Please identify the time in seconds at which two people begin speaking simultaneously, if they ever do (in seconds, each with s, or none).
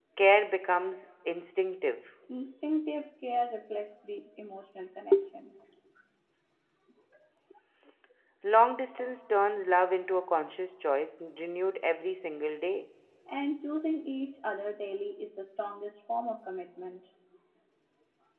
none